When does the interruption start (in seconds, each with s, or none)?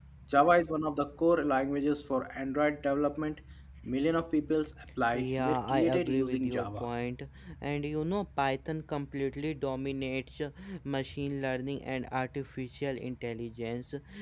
5.1 s